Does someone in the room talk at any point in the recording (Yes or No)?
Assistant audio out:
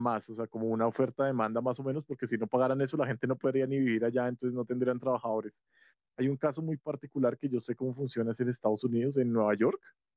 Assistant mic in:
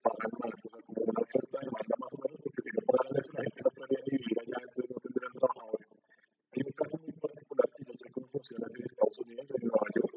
No